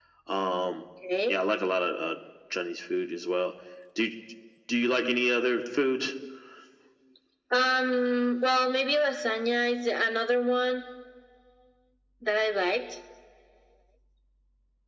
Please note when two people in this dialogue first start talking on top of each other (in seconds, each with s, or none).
none